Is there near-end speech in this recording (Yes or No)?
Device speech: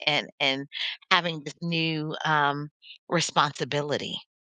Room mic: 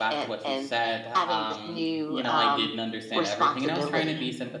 Yes